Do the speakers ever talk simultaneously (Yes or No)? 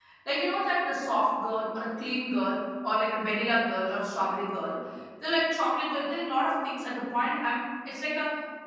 No